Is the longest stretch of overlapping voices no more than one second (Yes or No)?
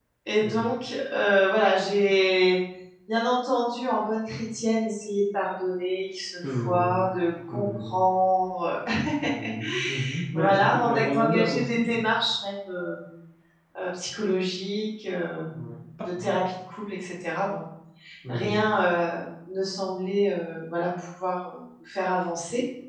No